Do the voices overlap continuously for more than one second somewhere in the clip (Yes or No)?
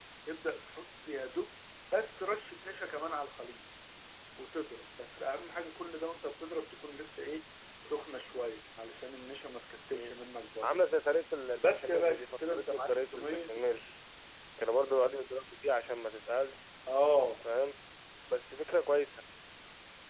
Yes